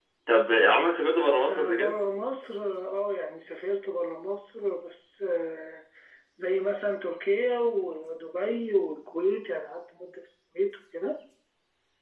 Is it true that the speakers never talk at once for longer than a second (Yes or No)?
Yes